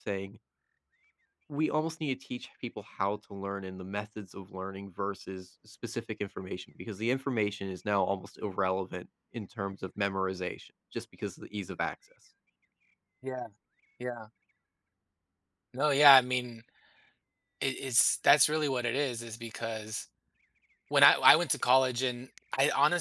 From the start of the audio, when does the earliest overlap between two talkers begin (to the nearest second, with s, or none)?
none